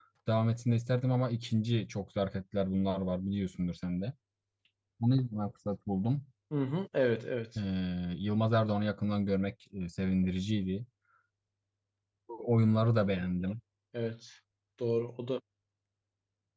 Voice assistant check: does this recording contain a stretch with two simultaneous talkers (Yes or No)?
No